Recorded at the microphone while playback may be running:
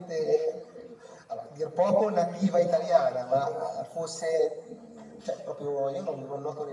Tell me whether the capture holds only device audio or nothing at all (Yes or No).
No